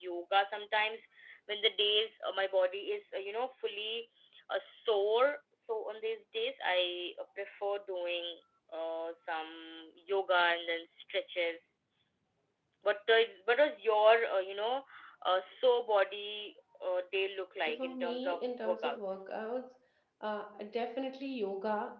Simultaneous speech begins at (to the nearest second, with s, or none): 18 s